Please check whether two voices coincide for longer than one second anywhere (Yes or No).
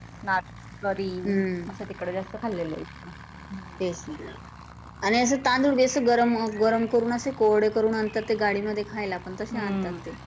No